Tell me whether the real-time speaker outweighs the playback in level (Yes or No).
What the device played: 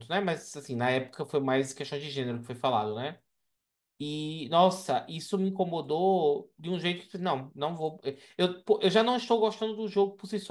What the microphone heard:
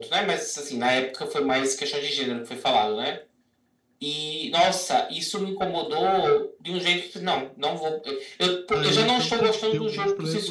No